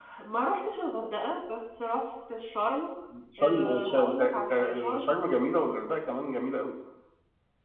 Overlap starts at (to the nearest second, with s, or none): 3 s